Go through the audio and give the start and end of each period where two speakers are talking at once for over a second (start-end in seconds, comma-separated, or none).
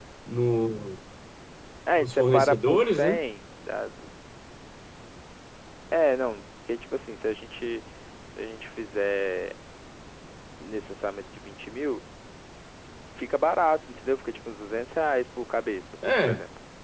2.0-3.2